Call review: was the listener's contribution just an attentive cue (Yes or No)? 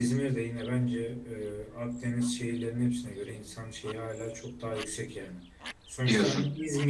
Yes